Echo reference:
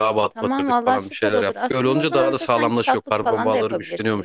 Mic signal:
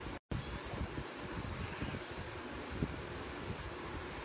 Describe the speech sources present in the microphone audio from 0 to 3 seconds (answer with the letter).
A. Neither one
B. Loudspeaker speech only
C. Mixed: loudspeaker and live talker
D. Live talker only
A